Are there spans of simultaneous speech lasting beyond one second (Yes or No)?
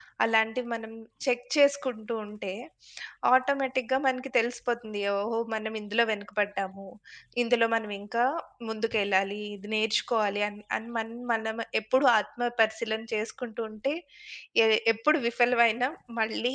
No